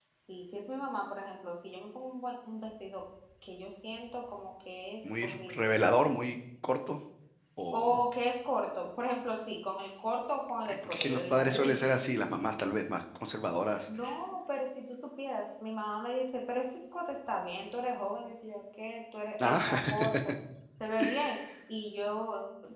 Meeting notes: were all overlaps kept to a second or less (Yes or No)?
No